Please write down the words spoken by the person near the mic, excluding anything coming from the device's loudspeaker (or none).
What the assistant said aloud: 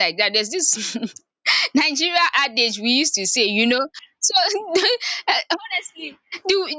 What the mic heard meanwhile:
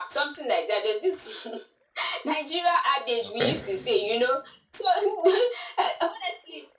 Okay.